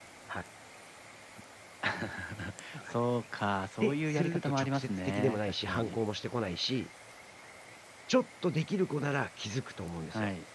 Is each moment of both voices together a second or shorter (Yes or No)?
No